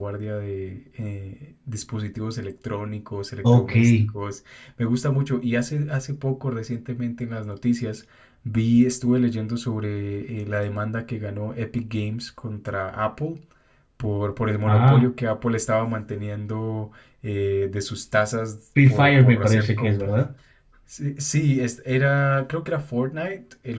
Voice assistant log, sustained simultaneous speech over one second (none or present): present